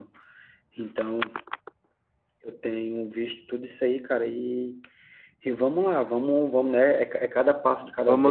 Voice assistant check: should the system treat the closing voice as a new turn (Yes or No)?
Yes